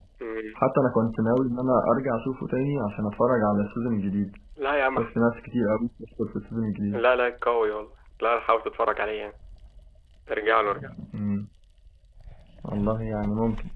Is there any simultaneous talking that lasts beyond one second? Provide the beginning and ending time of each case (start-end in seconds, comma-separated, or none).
none